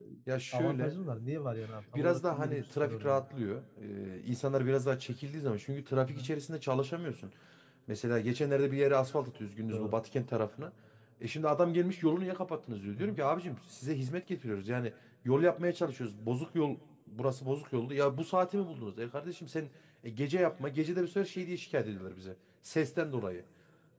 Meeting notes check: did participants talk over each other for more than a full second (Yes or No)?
Yes